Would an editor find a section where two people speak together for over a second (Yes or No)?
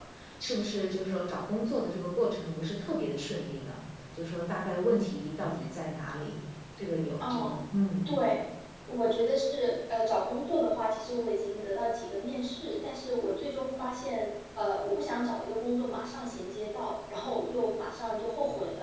No